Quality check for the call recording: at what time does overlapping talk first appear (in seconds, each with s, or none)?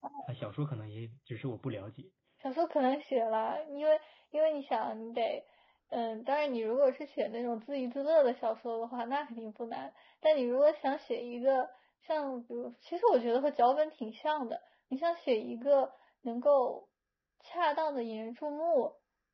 none